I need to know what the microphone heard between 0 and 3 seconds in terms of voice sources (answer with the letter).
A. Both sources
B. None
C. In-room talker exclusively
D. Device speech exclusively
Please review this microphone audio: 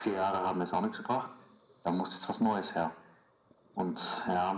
D